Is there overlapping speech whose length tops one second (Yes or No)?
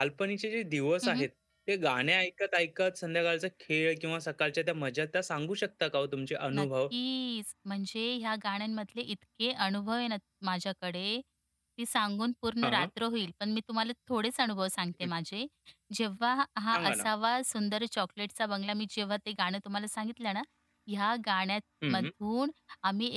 No